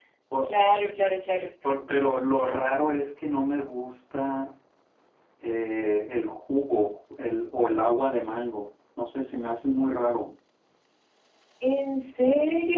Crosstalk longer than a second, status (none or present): none